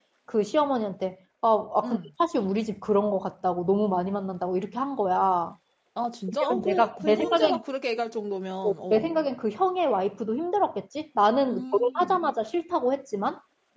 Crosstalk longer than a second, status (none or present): present